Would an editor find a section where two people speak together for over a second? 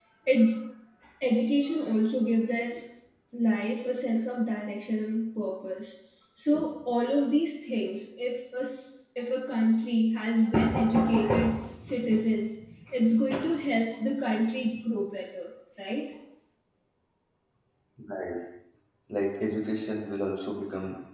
No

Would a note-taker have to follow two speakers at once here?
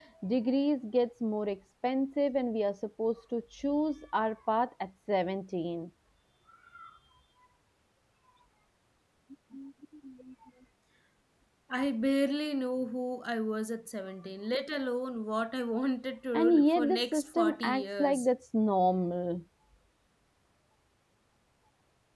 Yes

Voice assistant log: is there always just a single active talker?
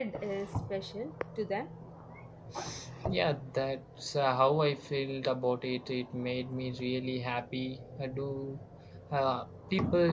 Yes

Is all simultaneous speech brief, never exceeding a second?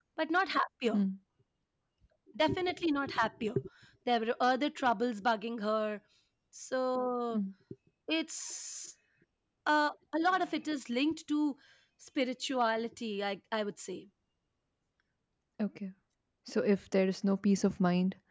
Yes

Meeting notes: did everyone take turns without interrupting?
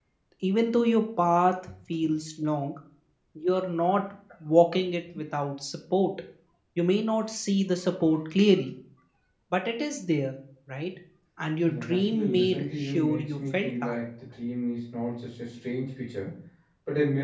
No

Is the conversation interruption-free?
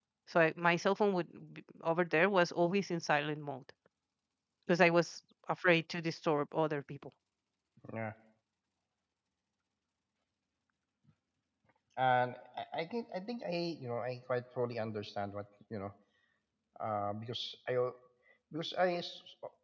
Yes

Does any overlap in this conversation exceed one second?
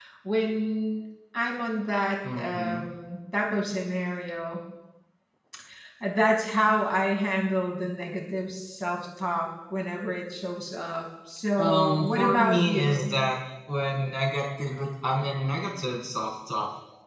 Yes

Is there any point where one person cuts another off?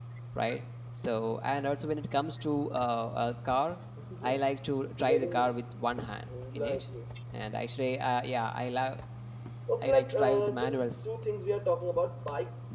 Yes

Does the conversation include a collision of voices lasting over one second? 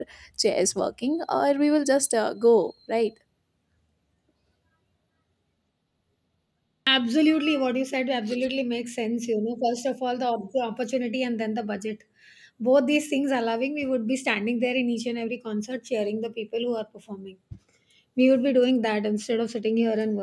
No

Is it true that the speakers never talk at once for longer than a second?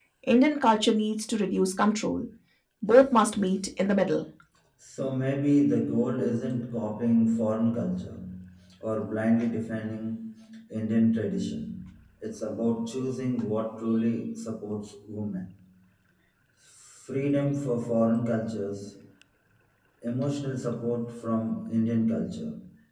Yes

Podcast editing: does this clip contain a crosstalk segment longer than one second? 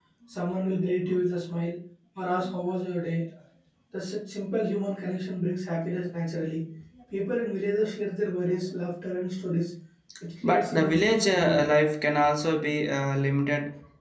Yes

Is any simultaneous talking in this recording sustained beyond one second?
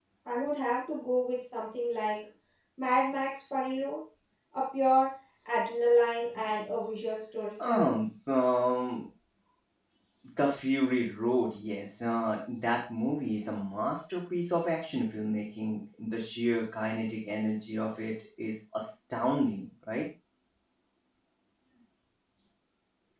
No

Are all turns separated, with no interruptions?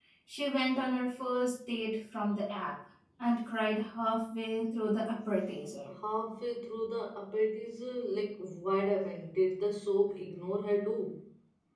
Yes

